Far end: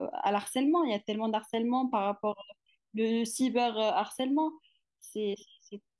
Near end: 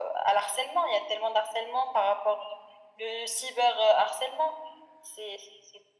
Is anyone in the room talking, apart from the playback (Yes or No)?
No